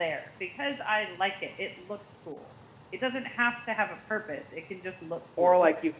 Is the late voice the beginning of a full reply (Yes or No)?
Yes